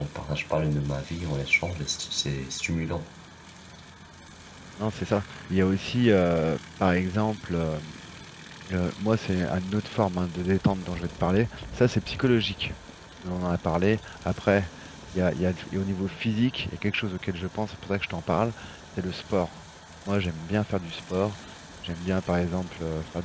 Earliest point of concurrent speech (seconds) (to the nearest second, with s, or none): none